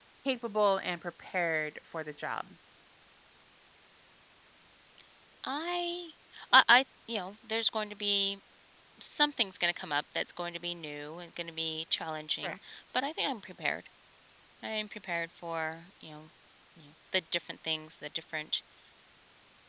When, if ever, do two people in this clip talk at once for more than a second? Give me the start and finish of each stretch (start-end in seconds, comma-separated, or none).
none